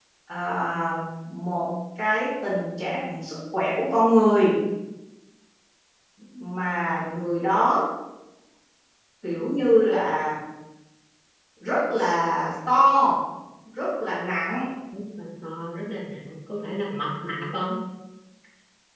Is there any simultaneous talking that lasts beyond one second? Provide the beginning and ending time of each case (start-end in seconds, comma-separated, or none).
none